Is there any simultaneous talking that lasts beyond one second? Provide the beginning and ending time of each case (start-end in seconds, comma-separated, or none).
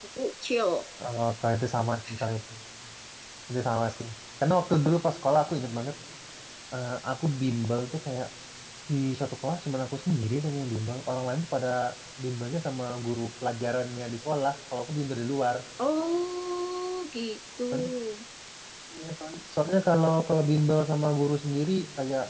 none